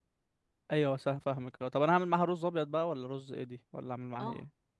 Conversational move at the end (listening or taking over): taking over